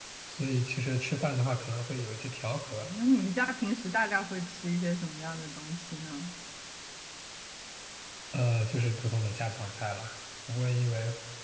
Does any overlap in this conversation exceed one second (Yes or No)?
No